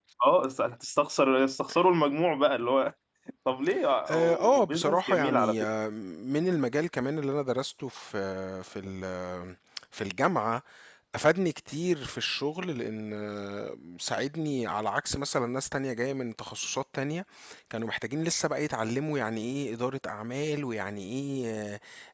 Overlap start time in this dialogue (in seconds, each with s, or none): 4.1 s